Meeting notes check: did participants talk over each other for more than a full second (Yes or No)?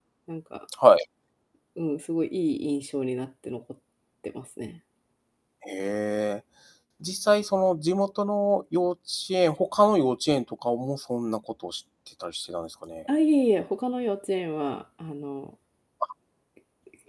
No